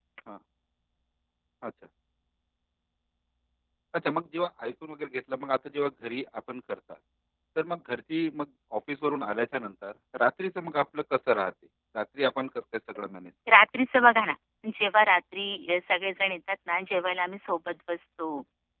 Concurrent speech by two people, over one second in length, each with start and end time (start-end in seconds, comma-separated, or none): none